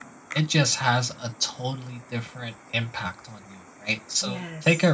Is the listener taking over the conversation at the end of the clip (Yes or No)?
No